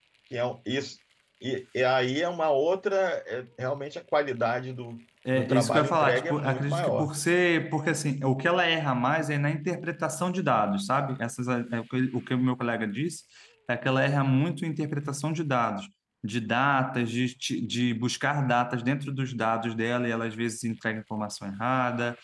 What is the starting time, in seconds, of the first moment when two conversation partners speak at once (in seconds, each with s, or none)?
5.2 s